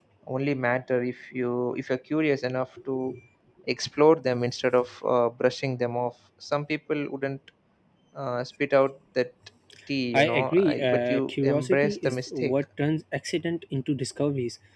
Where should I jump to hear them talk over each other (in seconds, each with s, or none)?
10.1 s